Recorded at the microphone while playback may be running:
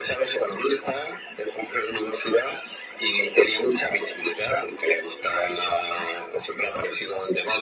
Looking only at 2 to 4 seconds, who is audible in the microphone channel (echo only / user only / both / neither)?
echo only